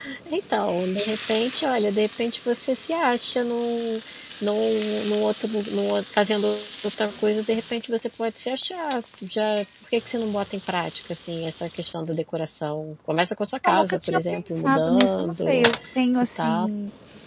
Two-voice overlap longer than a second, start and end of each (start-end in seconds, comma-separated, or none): 13.6-15.7